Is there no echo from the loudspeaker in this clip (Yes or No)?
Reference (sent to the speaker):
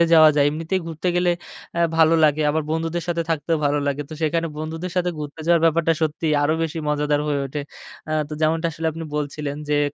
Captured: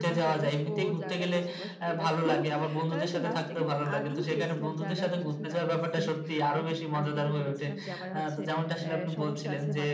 No